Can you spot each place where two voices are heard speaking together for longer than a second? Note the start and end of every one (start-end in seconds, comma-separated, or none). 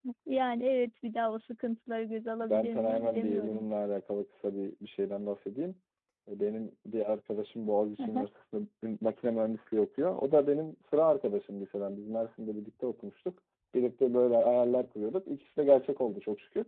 2.4-3.6